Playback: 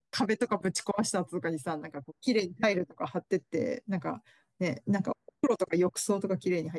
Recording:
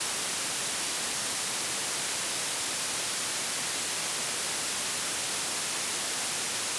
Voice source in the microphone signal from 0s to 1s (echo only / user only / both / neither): neither